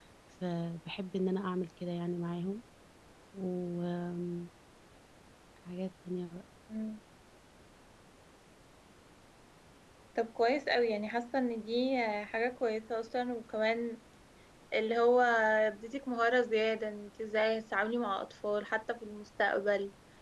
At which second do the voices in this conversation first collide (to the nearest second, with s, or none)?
none